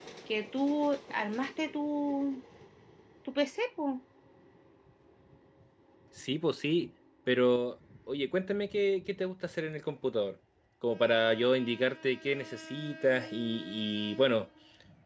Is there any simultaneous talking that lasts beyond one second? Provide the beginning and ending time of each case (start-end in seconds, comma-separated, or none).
none